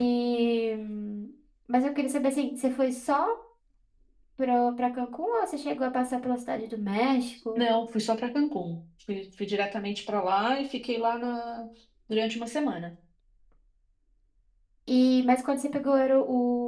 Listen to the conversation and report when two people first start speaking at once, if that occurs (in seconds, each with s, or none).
none